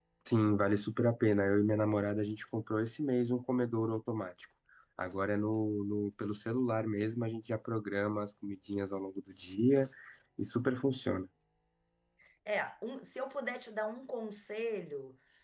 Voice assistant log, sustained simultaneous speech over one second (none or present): none